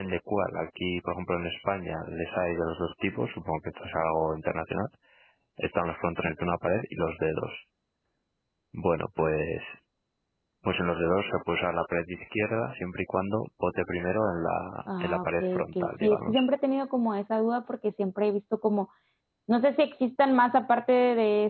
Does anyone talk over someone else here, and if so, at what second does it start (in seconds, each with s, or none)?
14.9 s